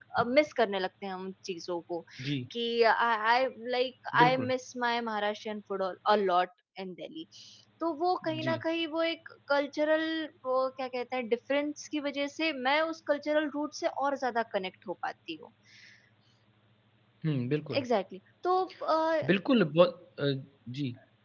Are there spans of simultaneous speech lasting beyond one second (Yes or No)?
No